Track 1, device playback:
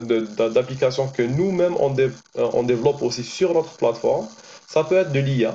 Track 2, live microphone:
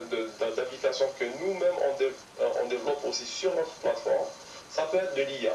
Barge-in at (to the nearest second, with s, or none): none